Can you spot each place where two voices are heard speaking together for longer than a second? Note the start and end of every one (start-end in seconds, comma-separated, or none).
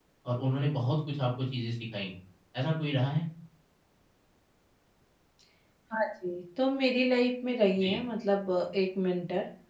none